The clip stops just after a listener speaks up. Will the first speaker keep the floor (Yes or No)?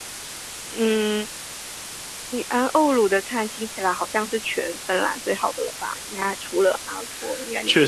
No